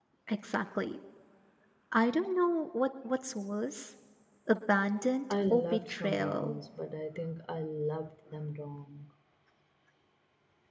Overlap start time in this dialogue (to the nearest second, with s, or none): 5 s